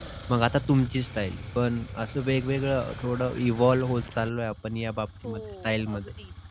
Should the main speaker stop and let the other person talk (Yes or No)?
Yes